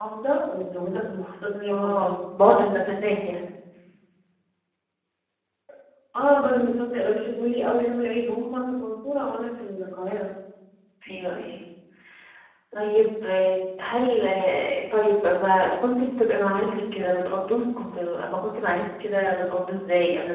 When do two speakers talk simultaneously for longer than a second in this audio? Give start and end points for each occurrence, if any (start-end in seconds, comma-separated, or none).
none